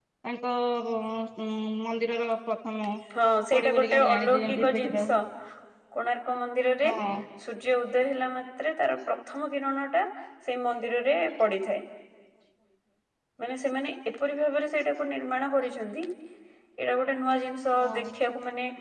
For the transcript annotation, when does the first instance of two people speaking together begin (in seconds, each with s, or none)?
3.5 s